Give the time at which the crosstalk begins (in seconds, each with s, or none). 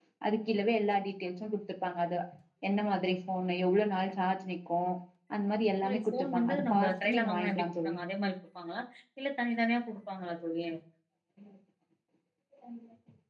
5.8 s